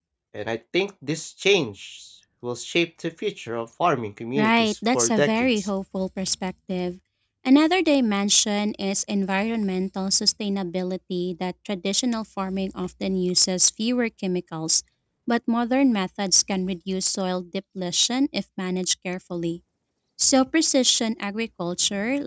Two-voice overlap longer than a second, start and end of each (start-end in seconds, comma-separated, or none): 4.4-5.7